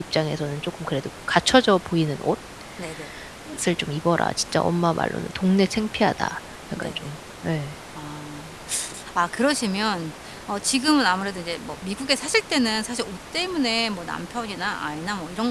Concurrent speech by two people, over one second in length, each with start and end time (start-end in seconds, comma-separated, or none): none